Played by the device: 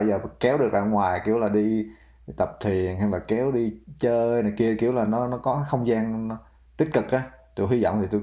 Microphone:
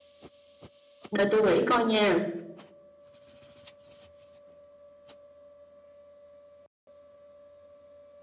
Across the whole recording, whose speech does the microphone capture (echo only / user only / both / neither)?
user only